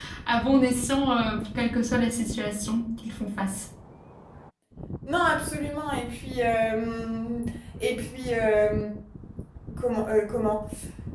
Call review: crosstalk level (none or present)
none